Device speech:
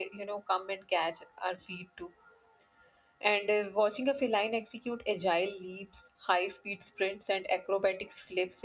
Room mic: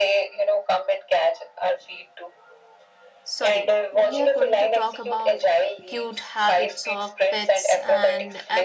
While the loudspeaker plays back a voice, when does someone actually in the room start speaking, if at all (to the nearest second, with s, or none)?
3 s